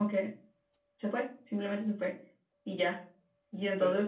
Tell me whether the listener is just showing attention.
Yes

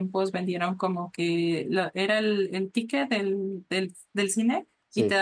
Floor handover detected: No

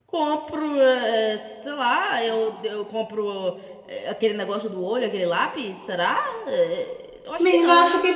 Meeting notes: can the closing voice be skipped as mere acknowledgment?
No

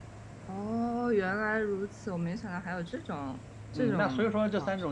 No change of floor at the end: No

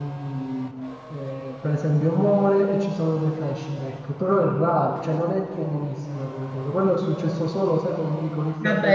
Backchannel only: No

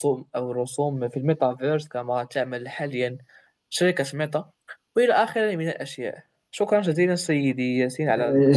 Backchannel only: No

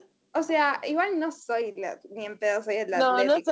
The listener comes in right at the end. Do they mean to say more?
Yes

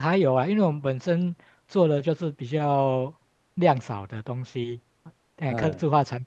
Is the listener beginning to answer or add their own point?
No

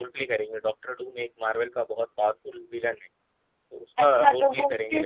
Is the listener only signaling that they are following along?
No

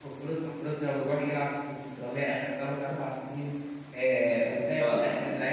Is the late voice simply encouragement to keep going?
Yes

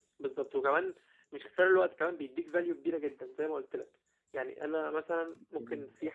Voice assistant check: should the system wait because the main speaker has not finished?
Yes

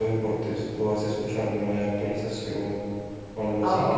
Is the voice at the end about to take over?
Yes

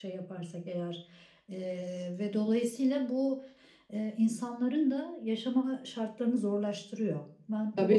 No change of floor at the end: No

